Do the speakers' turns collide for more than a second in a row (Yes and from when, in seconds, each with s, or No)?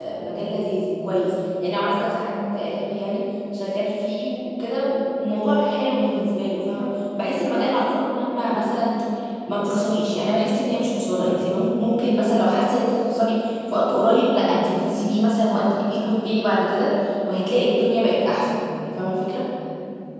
No